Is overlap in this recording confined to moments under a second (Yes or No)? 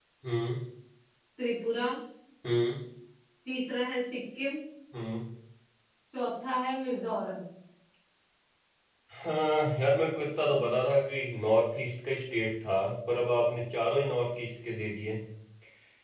Yes